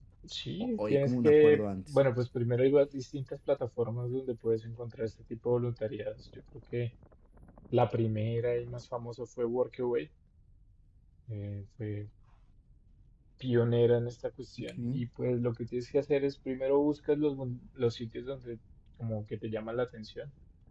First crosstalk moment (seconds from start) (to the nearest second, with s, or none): 1 s